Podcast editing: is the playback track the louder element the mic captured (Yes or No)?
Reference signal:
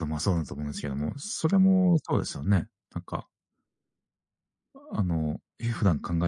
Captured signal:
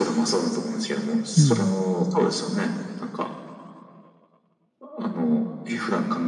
No